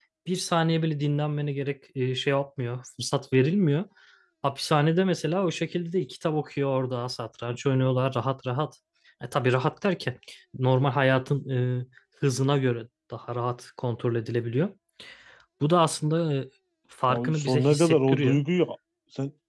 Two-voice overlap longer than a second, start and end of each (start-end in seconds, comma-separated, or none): 17.1-18.4